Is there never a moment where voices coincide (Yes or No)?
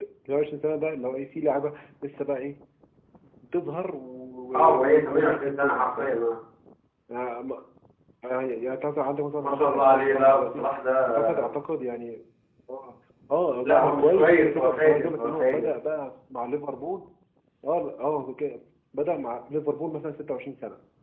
No